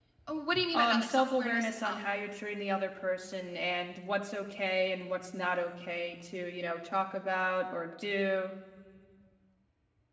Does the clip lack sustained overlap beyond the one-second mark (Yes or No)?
No